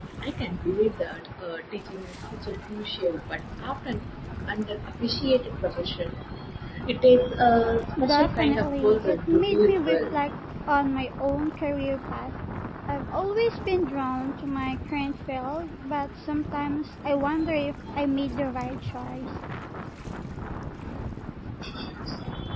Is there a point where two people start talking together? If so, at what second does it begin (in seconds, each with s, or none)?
8.0 s